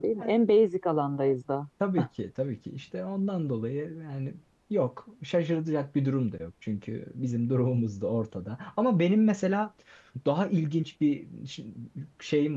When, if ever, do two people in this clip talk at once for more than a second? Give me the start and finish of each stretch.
none

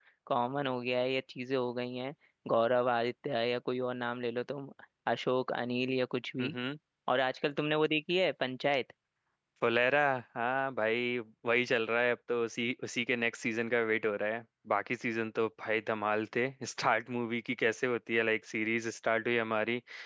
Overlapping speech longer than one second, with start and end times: none

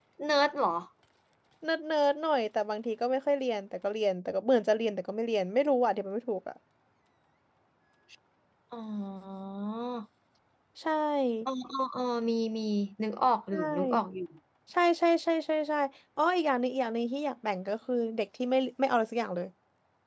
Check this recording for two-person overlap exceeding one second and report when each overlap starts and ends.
none

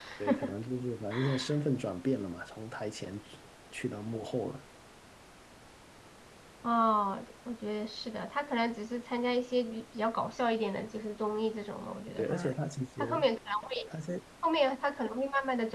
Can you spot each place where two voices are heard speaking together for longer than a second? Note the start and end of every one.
none

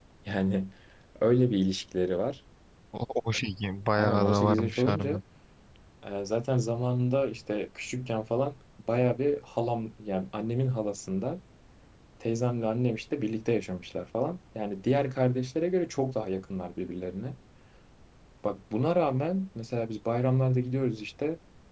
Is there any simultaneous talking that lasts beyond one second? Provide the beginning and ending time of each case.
3.9-5.2

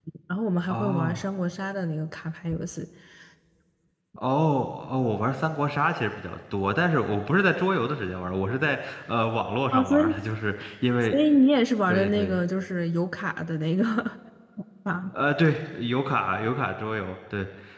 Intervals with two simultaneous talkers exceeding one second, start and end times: none

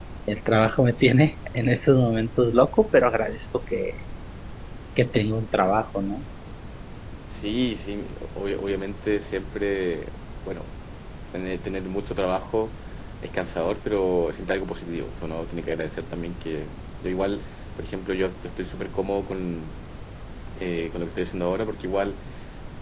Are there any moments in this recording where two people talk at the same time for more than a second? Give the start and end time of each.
none

